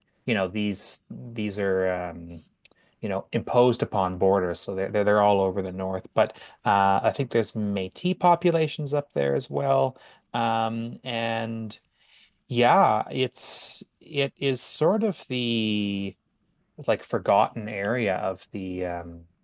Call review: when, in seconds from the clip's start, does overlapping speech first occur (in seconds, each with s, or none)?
none